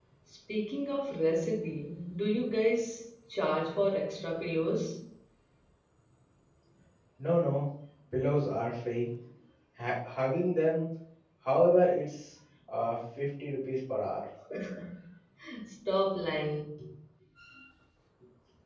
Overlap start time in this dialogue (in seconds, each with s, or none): none